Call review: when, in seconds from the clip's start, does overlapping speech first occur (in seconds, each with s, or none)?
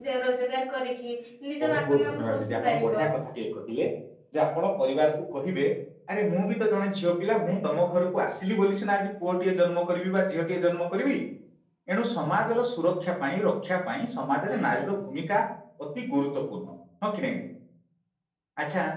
1.6 s